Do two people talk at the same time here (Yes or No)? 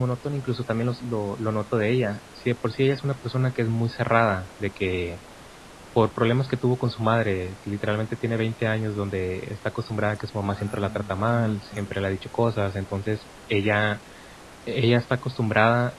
Yes